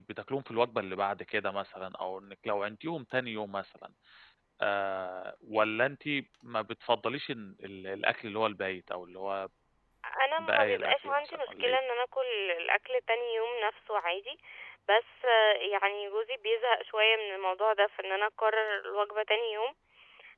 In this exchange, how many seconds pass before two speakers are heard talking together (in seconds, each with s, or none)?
10.4 s